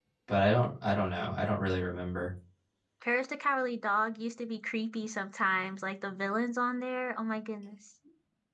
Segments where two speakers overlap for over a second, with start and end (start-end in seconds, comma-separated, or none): none